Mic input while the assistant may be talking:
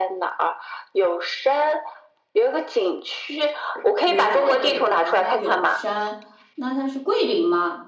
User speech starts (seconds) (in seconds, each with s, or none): 4.0 s